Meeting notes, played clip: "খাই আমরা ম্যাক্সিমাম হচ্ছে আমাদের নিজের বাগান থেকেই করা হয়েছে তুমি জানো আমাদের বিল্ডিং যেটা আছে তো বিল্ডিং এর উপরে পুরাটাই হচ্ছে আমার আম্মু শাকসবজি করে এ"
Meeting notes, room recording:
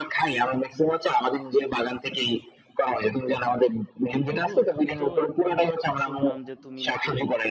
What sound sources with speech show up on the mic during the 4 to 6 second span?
both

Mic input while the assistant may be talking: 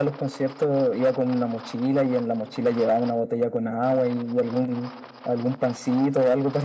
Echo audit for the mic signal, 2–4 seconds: echo only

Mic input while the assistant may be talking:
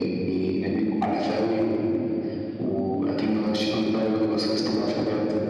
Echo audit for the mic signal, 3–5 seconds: echo only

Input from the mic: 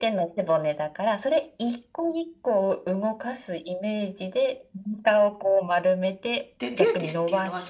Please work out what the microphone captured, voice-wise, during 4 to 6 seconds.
echo only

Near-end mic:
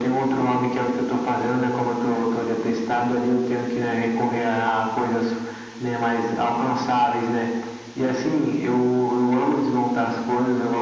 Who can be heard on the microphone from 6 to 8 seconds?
echo only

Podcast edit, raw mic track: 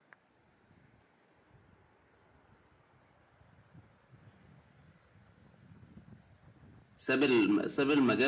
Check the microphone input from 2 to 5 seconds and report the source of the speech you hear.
neither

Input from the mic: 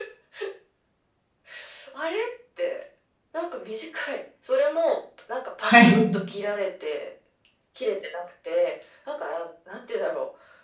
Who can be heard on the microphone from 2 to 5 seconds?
echo only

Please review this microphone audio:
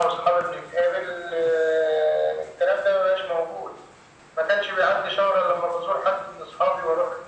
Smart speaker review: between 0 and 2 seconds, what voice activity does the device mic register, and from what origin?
echo only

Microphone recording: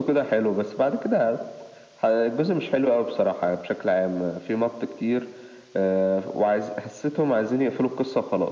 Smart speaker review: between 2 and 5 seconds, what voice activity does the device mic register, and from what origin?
echo only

